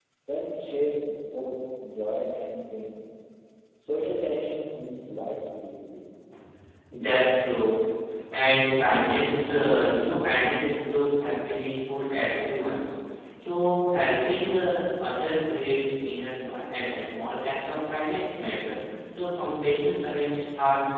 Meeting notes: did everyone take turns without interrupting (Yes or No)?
Yes